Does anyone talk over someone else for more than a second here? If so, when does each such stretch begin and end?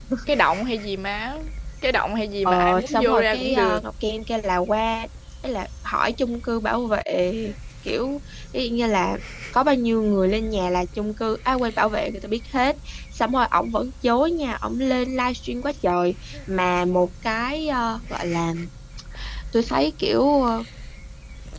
2.5-3.8

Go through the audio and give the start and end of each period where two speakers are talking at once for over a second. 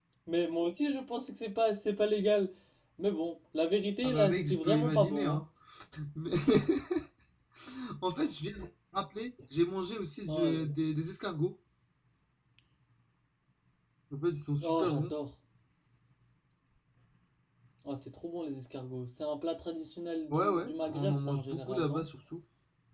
4.0-5.4, 20.3-22.1

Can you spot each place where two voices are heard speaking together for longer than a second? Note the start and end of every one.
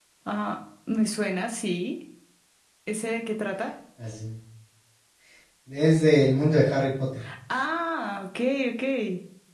none

